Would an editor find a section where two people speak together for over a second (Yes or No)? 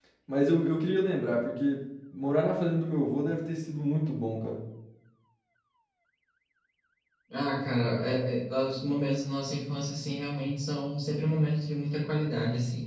No